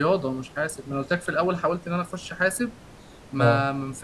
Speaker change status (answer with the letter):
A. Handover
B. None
B